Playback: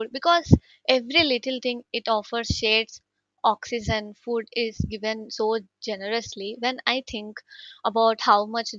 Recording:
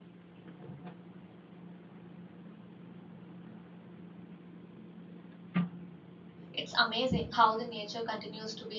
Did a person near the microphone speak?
Yes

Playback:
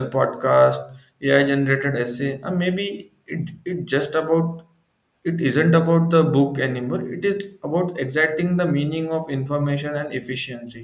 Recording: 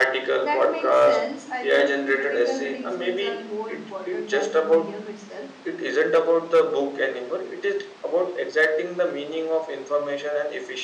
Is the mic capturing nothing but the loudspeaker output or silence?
No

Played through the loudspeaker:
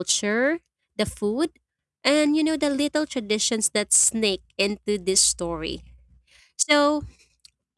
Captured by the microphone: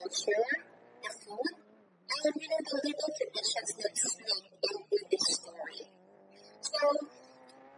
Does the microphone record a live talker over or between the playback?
No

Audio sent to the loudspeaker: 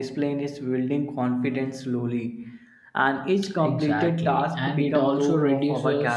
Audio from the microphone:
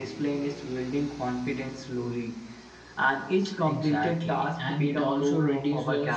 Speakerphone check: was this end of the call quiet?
Yes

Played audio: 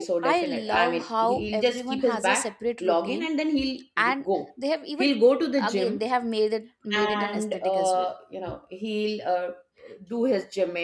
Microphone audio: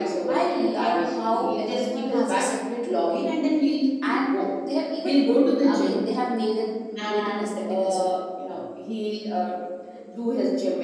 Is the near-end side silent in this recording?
Yes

